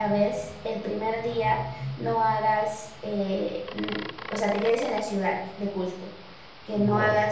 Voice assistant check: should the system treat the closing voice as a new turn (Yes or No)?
No